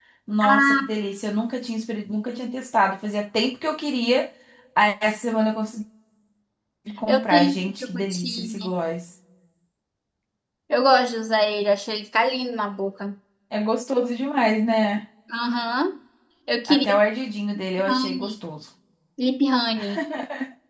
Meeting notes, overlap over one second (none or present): present